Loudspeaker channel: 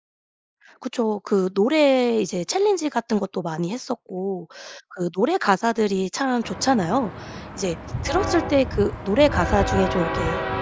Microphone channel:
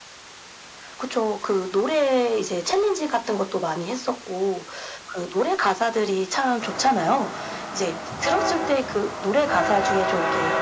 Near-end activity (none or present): none